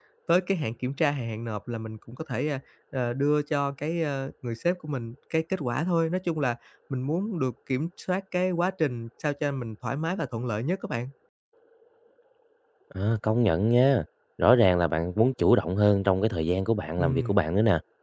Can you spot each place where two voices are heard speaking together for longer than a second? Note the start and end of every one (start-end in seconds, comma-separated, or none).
none